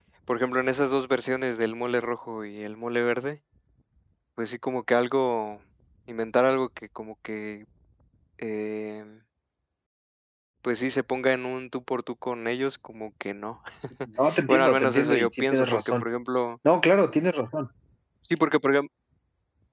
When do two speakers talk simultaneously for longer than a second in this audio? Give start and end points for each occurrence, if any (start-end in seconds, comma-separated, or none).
14.5-16.0